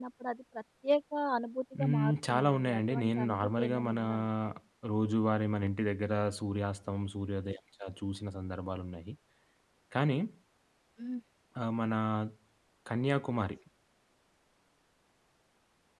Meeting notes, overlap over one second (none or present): present